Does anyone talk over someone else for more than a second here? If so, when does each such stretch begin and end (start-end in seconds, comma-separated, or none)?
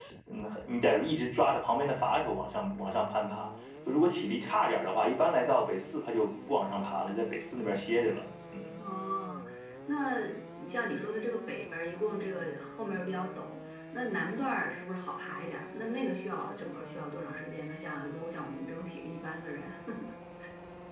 none